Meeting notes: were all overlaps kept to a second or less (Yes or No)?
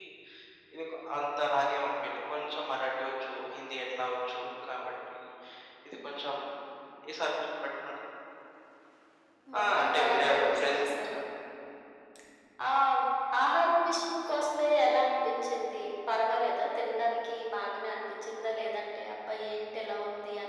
No